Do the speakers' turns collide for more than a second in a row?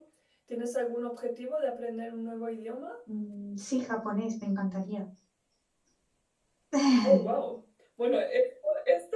No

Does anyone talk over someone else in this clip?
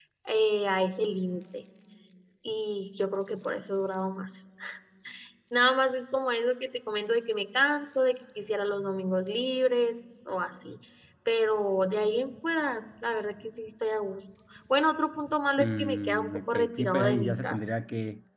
Yes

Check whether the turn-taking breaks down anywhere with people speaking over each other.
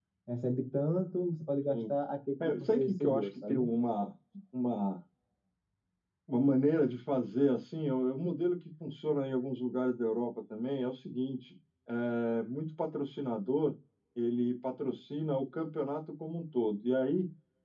Yes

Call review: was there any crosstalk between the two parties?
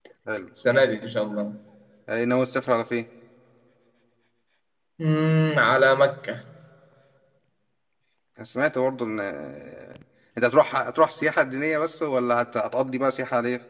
No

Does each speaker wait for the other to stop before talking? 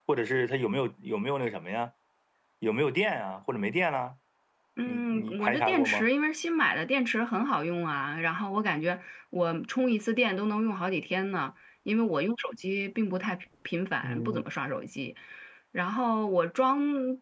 No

